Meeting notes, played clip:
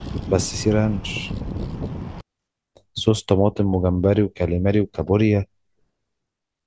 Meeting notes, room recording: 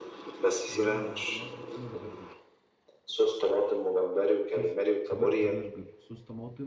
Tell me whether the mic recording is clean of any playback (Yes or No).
No